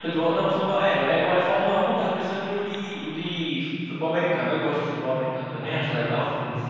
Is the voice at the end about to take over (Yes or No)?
Yes